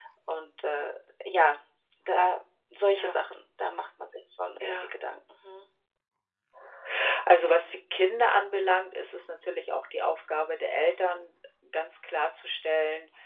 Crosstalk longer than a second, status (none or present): none